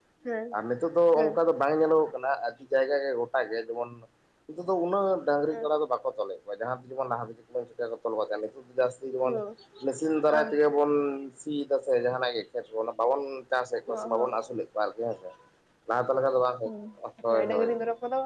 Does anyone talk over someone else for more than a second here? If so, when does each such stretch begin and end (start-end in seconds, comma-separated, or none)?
none